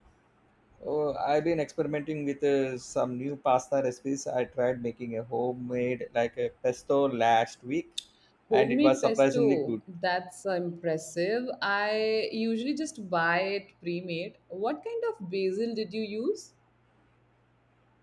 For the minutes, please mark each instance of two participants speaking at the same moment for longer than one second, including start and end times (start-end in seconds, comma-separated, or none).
8.5-9.8